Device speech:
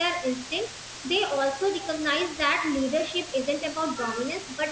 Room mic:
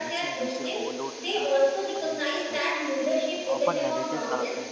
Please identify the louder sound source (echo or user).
echo